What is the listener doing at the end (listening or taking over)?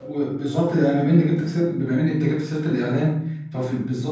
listening